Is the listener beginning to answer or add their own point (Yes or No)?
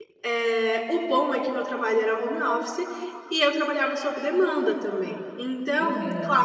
No